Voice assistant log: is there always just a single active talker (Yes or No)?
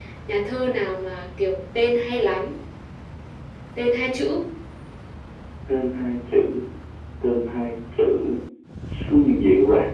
Yes